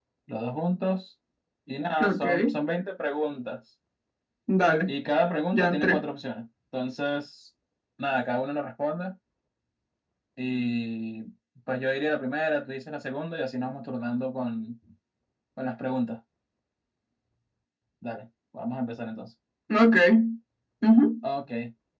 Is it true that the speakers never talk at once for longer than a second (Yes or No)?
Yes